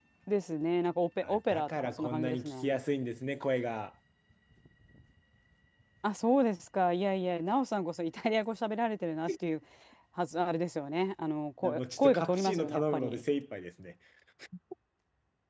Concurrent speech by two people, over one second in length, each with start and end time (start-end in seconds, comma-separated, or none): 1.2-2.8, 11.6-13.2